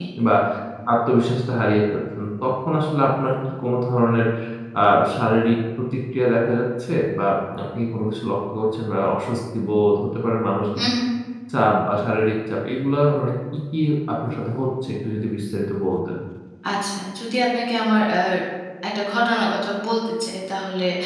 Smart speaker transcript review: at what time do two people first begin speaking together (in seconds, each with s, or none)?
none